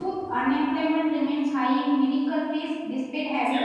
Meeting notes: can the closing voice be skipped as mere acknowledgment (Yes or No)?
Yes